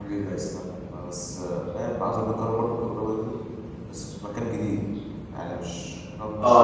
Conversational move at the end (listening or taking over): taking over